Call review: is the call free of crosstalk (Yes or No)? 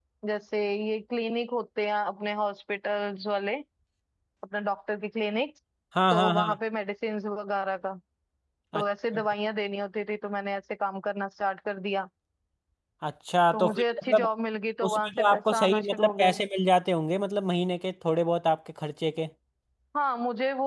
No